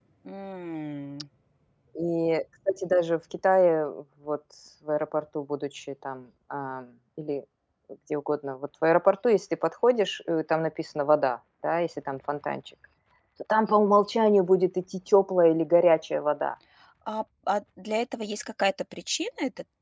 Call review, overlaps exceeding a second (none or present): none